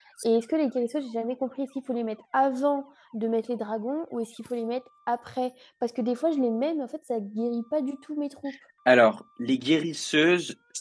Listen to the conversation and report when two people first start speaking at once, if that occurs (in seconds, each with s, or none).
none